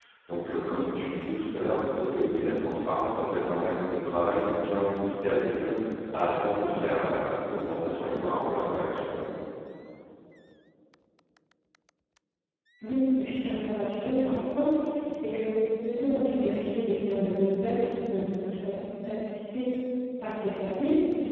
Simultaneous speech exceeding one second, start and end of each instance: none

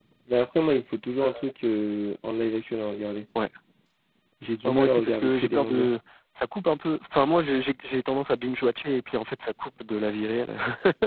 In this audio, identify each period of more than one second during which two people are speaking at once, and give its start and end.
4.6-5.9

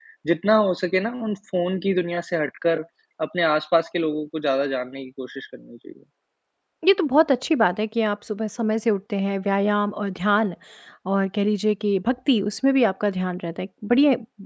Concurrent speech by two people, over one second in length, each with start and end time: none

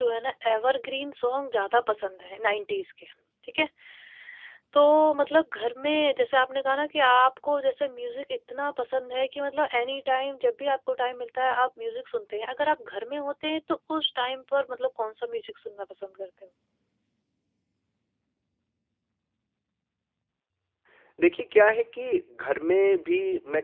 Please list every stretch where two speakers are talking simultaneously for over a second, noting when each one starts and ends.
none

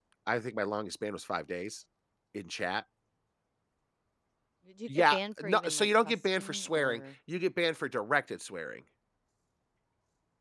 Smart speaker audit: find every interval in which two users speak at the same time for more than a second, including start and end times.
4.9-7.0

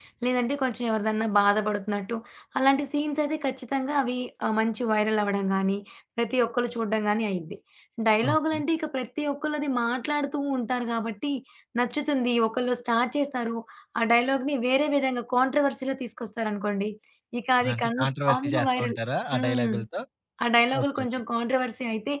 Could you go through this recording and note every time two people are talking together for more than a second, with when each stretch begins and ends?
17.7-19.0

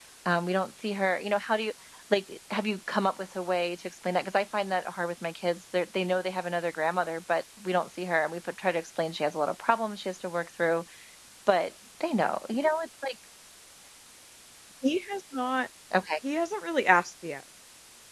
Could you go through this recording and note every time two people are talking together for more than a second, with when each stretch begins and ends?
none

